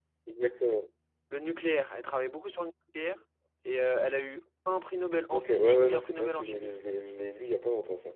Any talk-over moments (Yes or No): Yes